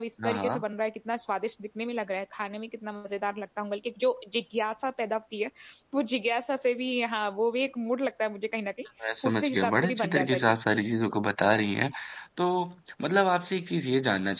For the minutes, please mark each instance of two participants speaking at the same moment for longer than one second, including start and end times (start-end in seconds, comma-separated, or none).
9.3-10.6